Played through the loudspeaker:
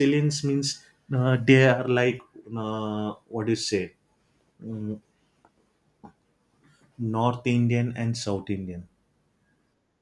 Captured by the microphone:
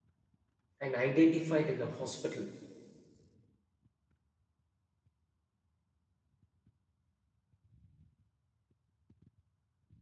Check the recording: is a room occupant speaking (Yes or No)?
Yes